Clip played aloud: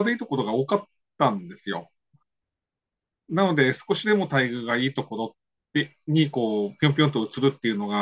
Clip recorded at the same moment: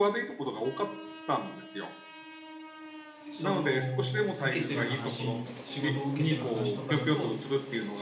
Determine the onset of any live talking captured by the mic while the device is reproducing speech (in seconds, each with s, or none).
3.3 s